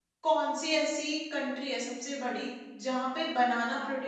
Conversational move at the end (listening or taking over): listening